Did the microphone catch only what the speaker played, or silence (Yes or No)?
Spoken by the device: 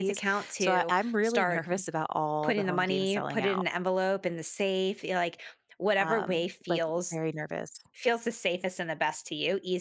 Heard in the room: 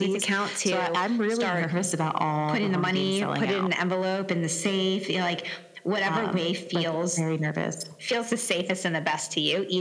Yes